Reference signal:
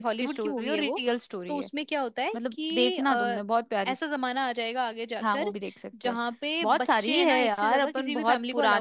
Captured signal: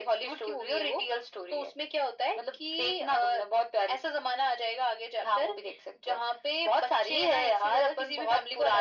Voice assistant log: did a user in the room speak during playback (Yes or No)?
No